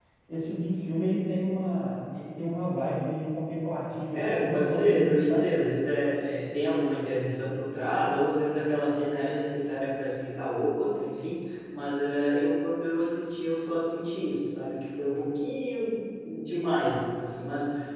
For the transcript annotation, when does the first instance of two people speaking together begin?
4.1 s

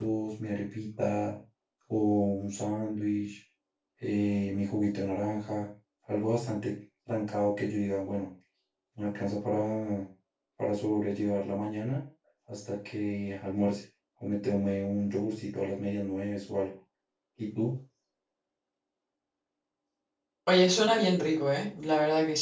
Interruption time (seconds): none

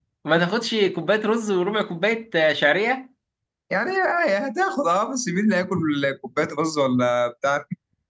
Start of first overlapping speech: none

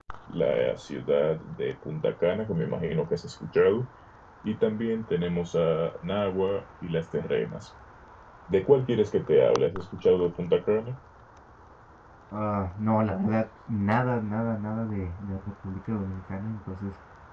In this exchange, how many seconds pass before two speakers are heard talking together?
none

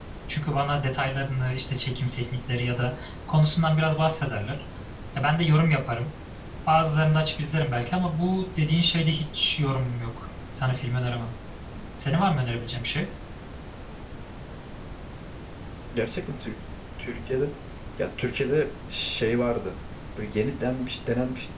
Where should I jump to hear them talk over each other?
none

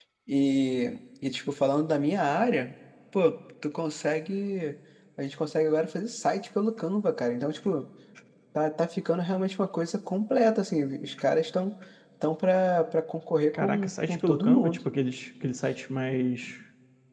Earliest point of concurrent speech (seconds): 13.5 s

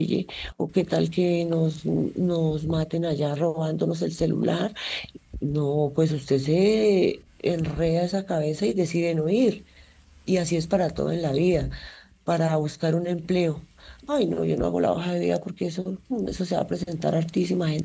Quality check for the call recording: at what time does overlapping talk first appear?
none

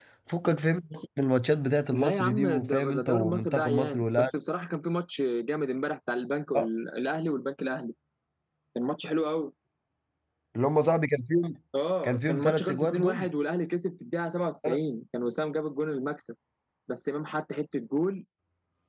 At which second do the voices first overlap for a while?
1.9 s

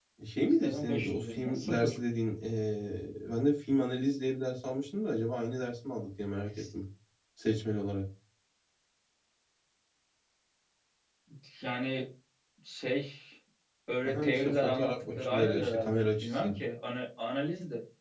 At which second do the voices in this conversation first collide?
0.6 s

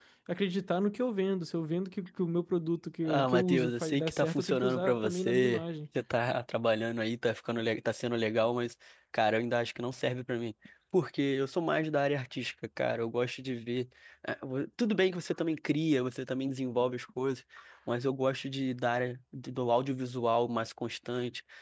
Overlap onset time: 3.0 s

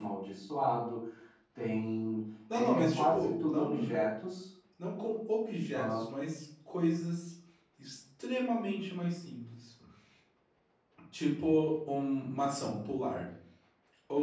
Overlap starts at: 2.5 s

